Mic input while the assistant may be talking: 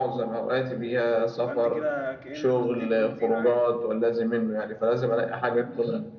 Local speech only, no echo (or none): يبقى انت كده كأنك حطيت بنزين عادي